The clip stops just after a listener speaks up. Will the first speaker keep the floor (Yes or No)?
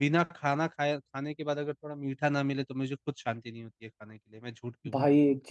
No